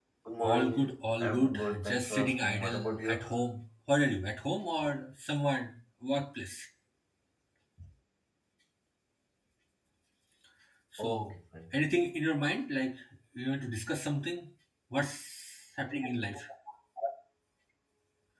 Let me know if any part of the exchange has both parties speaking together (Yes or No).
Yes